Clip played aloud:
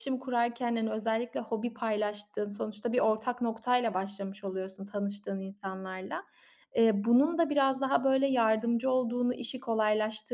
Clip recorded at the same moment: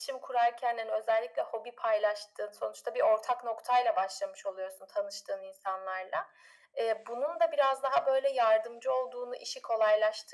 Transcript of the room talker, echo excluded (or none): none